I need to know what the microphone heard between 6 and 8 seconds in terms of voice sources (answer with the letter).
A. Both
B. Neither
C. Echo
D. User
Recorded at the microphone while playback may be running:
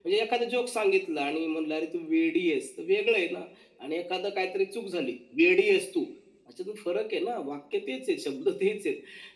C